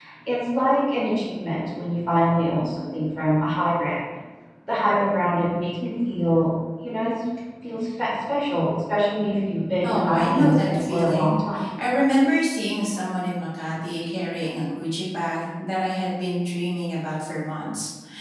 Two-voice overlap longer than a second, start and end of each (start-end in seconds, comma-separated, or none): 9.8-11.4